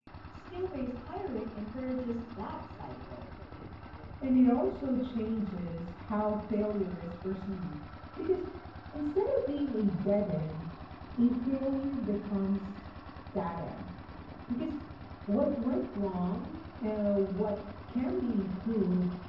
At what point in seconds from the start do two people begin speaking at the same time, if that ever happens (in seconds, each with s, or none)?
none